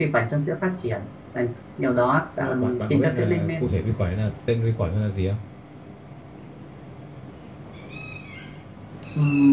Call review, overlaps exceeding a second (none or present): present